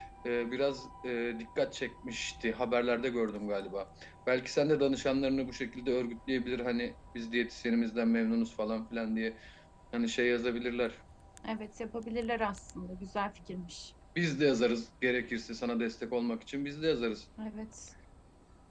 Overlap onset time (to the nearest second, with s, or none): none